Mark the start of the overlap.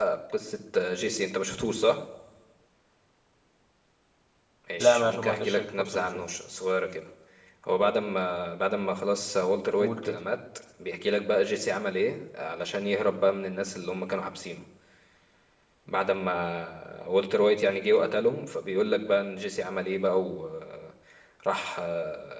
5 s

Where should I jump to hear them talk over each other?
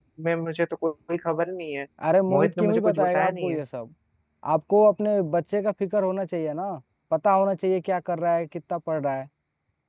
2 s

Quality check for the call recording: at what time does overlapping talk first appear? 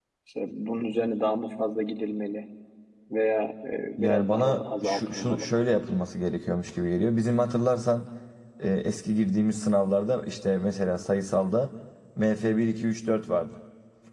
4 s

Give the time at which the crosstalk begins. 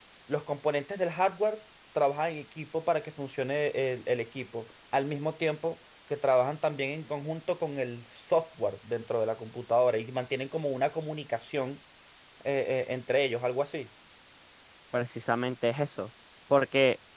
none

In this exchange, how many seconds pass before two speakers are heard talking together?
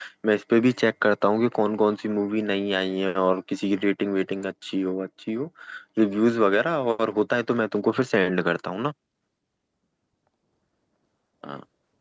none

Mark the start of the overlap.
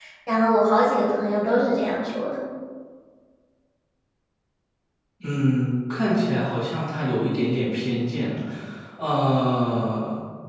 none

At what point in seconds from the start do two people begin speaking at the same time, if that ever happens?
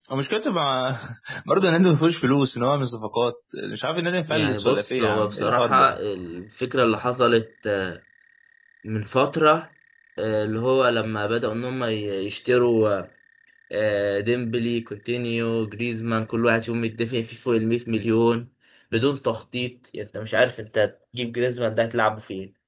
4 s

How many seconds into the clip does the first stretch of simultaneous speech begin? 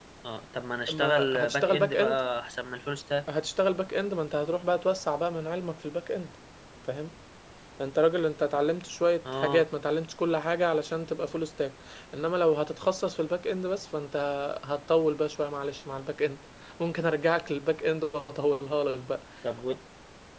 1 s

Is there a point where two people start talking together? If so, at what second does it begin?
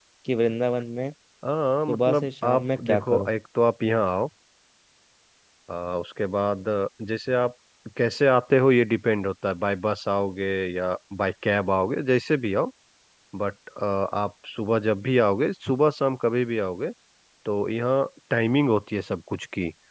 2 s

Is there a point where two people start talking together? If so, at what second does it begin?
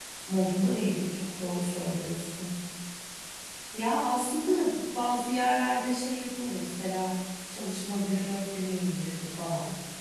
none

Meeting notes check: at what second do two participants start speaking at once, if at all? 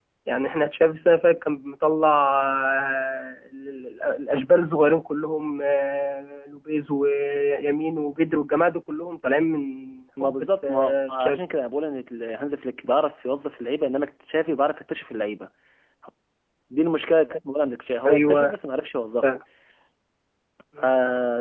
10 s

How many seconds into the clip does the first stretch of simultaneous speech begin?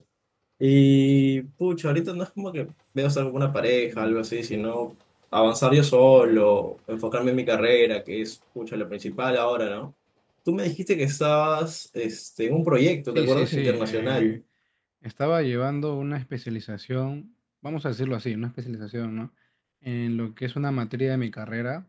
13 s

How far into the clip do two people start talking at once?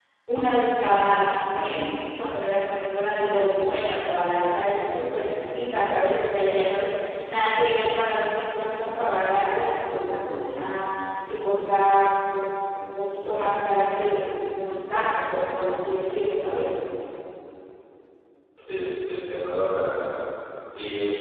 none

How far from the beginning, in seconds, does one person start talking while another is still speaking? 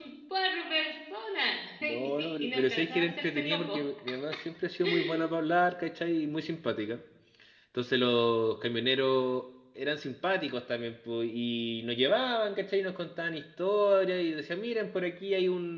2 s

